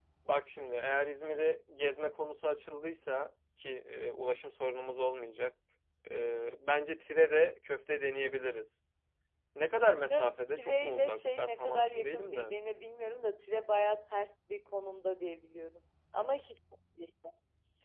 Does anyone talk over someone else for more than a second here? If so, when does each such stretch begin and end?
10.1-12.5

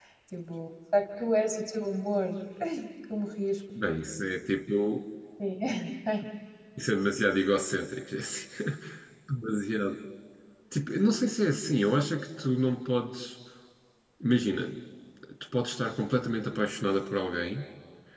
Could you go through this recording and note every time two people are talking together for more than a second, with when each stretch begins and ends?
none

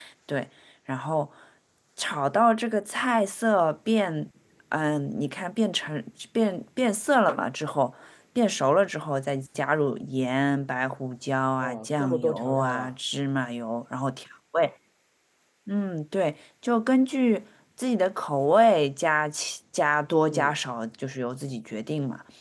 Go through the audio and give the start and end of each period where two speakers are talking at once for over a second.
11.6-12.9

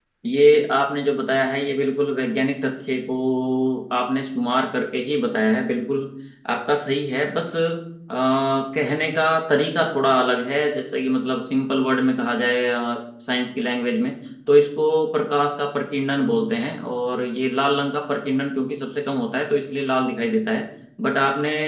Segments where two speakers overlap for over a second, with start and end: none

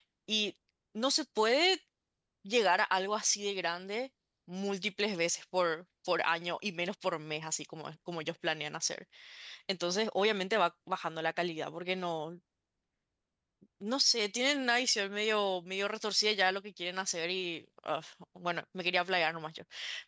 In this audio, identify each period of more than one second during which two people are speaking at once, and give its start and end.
none

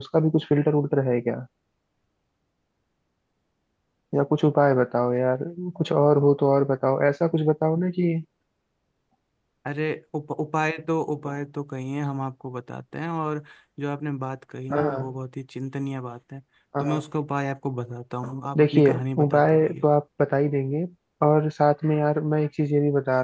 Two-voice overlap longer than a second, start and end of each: 18.6-19.8

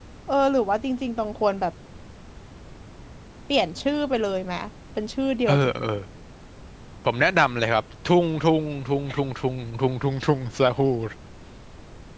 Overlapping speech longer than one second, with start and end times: none

